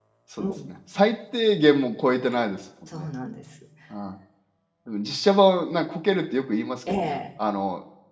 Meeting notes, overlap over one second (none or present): none